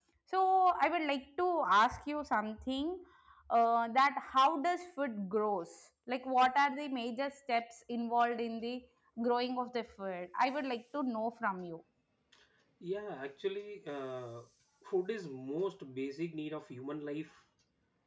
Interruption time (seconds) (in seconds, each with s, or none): none